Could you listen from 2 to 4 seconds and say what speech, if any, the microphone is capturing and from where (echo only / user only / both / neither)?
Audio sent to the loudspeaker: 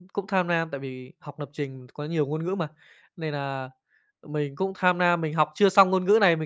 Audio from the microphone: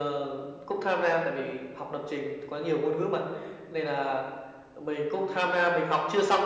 echo only